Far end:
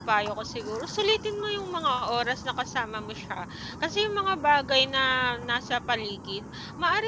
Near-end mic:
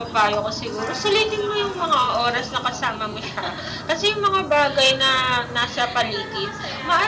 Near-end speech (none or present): present